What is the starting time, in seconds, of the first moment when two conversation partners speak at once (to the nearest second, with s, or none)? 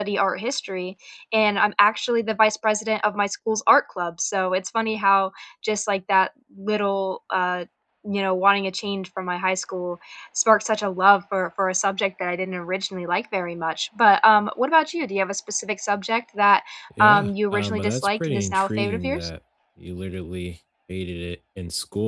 17 s